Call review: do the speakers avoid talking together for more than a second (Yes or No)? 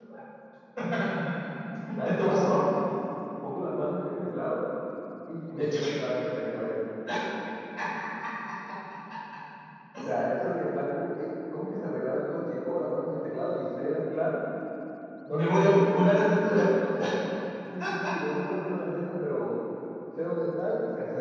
No